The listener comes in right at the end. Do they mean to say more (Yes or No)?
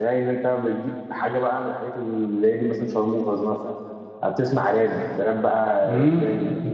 Yes